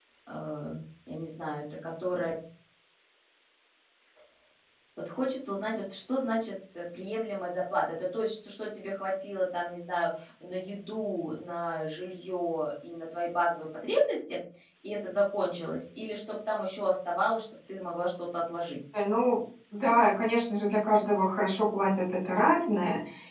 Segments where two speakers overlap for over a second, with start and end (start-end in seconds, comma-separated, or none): none